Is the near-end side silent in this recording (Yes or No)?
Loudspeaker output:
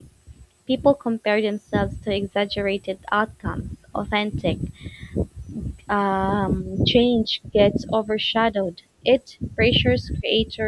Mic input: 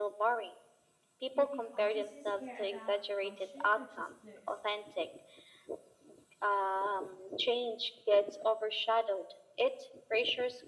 No